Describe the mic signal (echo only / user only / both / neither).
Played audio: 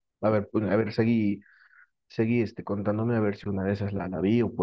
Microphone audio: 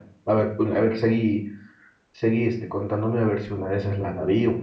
echo only